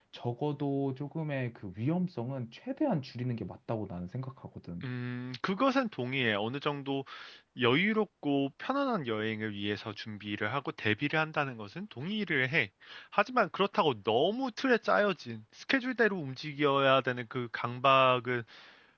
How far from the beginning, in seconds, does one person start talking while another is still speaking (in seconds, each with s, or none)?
none